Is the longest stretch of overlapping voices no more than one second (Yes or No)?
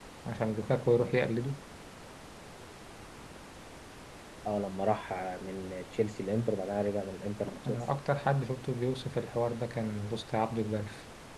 Yes